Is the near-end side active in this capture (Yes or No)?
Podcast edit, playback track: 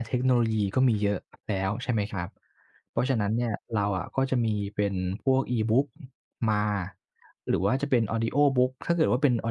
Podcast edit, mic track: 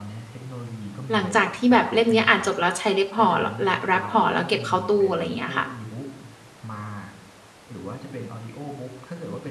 Yes